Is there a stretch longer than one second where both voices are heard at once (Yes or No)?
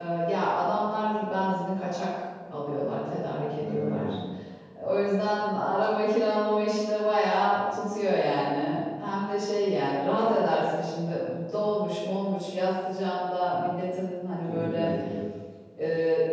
No